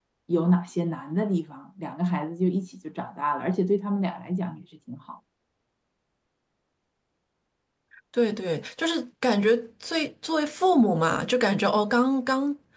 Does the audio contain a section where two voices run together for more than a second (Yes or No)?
No